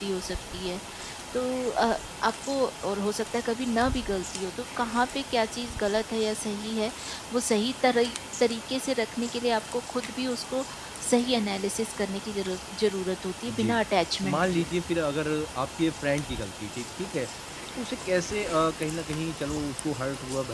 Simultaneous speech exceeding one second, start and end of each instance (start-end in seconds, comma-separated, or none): none